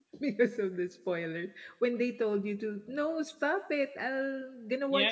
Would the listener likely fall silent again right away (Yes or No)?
No